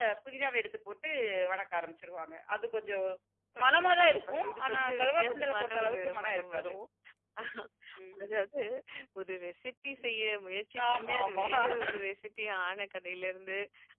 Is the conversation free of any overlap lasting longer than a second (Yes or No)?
No